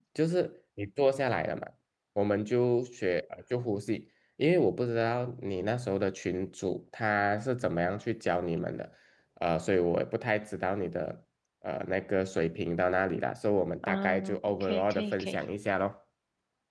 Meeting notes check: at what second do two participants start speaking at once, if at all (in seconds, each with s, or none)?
13.8 s